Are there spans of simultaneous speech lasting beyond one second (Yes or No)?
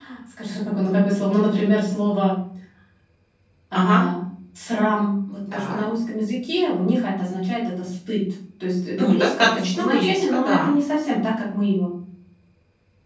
Yes